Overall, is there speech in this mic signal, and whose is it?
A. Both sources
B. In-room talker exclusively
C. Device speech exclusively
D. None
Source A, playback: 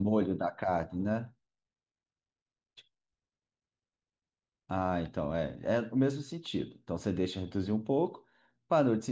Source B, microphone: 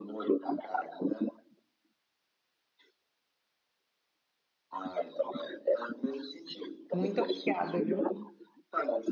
A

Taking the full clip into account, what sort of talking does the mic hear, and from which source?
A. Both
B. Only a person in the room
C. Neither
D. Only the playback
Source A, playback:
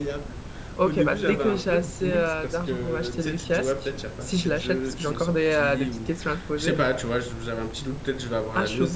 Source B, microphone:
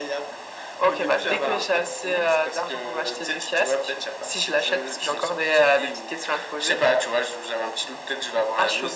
D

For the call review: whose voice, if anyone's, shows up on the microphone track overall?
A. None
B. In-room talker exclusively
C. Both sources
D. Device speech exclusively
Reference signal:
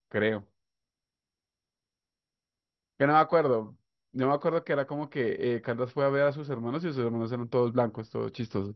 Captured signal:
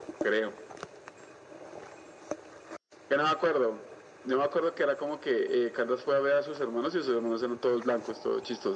D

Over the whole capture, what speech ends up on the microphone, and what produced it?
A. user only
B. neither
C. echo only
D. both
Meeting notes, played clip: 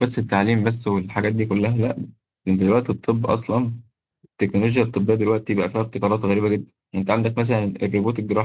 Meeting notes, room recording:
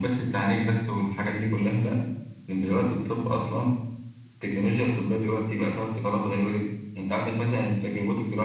C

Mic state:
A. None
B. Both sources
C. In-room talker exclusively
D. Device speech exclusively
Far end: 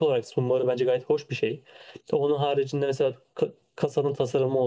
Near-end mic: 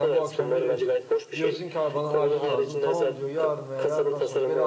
B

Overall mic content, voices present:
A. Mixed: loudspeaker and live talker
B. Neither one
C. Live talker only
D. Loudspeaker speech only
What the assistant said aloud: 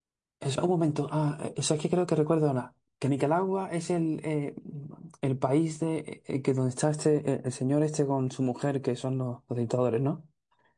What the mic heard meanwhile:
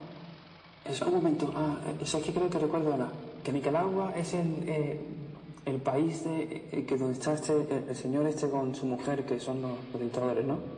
D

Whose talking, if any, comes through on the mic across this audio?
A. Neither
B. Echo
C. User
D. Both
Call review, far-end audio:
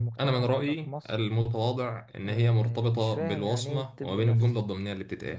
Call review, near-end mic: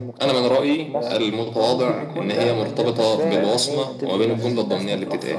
D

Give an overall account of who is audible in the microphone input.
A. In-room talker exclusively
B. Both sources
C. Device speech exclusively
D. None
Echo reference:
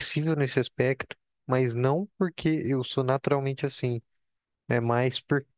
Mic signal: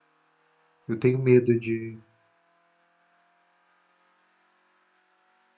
A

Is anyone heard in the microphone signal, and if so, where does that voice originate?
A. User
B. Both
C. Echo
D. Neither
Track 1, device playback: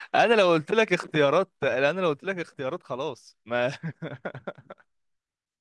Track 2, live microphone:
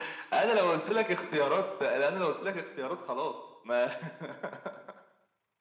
C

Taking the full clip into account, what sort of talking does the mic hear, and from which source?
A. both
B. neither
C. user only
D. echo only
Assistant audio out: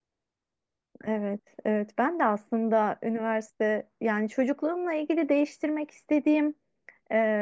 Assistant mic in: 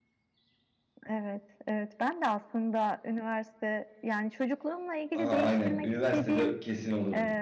A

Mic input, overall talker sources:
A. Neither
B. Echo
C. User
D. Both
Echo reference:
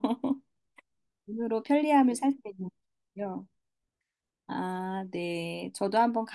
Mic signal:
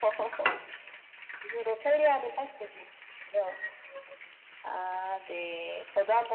B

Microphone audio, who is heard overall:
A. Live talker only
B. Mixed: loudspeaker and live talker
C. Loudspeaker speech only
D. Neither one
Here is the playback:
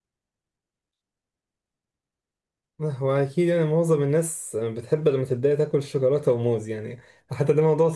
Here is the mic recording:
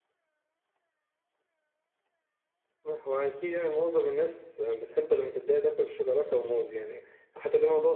C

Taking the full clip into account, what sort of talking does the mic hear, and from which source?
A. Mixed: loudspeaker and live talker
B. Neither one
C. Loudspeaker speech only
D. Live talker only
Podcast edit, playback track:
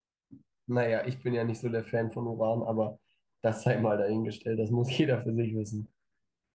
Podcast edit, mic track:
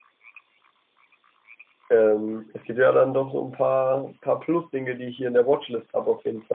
D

